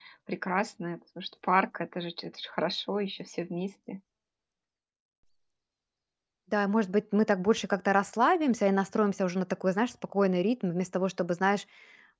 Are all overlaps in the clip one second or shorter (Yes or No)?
Yes